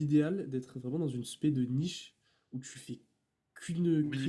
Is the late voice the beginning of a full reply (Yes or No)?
Yes